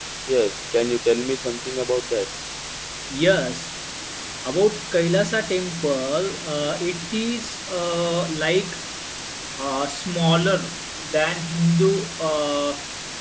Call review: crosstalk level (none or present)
none